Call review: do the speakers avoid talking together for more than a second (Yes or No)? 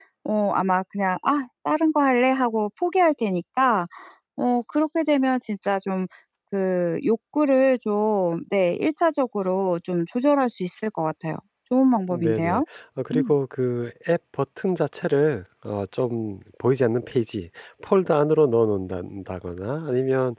Yes